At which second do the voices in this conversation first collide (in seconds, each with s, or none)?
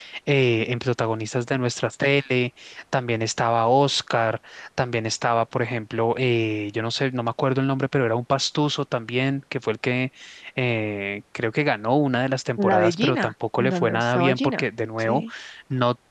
12.6 s